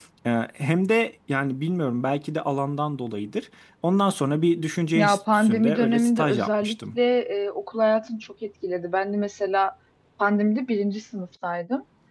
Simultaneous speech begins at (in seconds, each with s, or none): 5.0 s